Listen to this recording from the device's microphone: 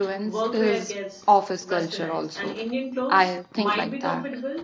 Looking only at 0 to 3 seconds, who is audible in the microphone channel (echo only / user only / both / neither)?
both